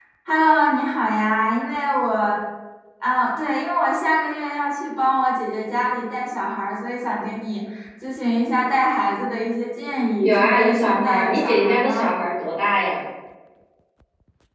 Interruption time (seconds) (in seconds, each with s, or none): 10.2 s